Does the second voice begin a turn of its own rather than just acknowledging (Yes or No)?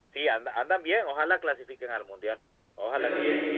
Yes